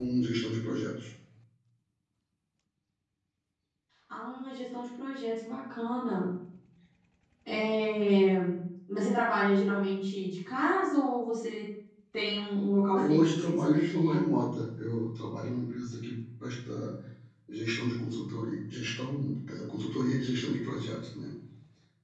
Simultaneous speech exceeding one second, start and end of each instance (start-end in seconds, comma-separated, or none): 12.9-14.2